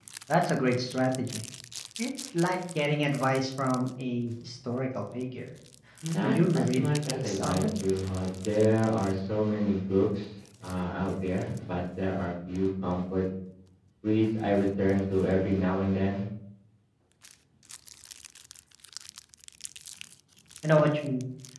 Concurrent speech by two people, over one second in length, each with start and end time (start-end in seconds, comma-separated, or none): 6.2-7.6